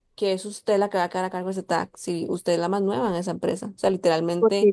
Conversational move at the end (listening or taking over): listening